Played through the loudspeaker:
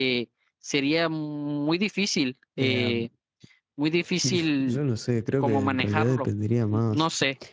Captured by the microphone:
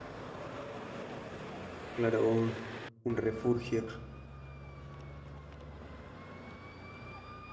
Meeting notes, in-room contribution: present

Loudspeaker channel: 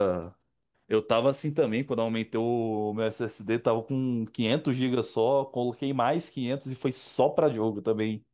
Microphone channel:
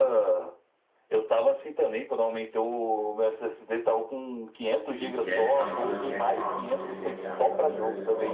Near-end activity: present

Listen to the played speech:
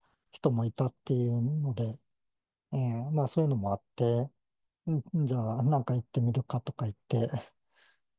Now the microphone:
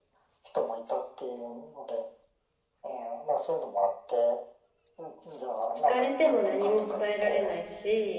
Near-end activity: present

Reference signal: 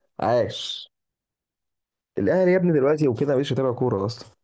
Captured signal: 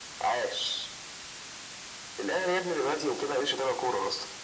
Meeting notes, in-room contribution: none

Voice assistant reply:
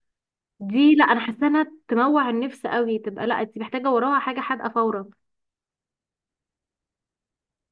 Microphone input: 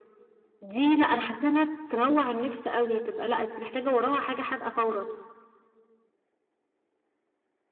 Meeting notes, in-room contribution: none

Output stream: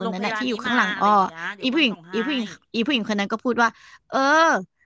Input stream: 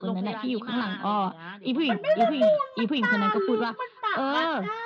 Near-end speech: present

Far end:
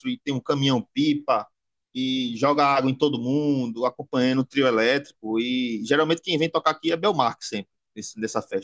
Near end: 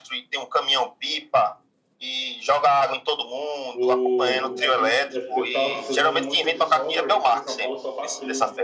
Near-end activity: present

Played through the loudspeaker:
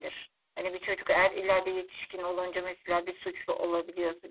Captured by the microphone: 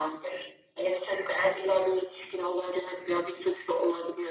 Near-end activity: none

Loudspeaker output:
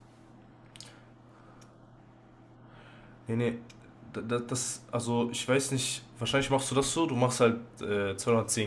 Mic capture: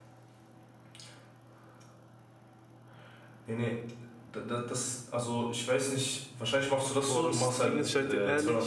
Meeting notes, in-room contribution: present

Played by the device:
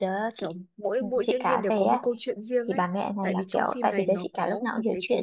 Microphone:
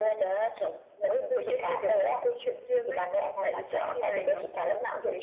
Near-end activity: none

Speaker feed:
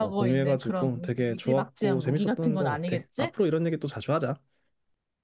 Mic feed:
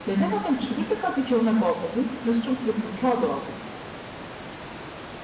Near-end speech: present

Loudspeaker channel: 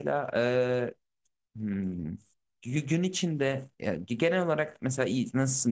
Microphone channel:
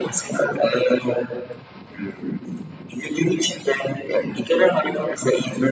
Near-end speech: none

